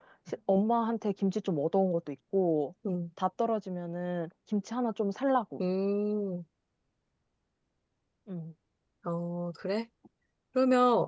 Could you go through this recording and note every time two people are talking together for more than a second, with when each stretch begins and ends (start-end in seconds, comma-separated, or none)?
none